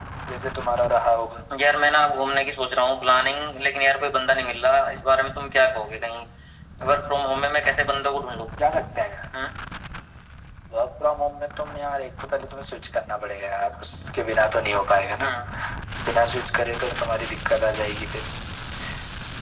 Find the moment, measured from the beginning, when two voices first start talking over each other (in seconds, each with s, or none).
none